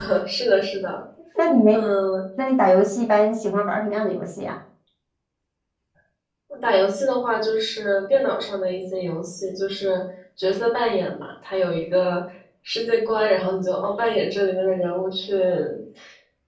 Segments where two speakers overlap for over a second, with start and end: none

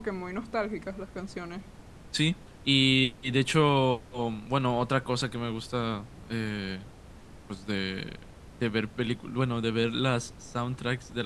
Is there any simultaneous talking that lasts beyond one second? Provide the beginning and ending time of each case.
none

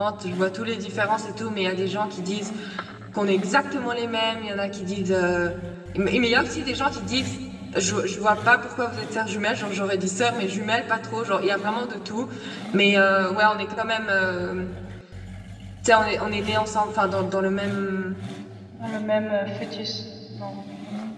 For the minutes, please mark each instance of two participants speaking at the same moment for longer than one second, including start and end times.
none

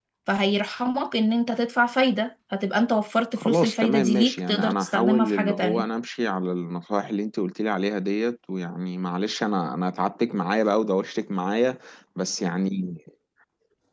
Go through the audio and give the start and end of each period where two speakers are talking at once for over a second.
3.4-5.8

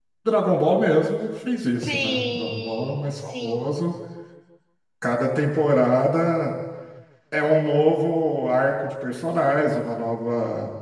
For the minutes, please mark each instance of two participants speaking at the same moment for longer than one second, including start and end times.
1.8-3.7

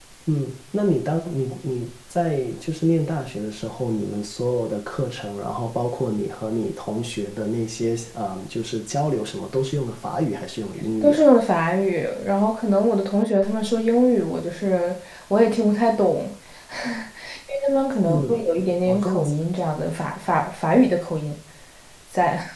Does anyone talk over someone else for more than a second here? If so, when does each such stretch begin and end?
none

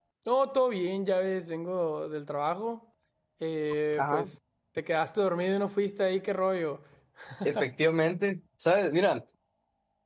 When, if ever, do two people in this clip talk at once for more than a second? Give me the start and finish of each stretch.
none

